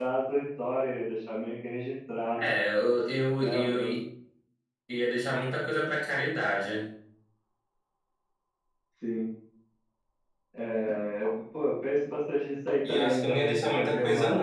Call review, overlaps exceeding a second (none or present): present